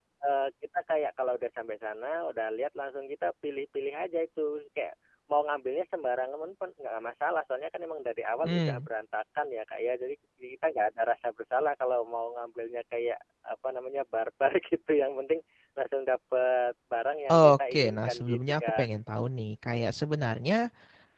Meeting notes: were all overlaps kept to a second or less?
No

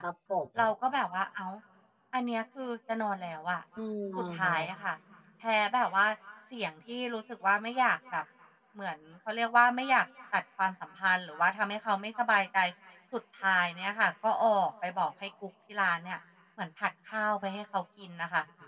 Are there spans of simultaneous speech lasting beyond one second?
No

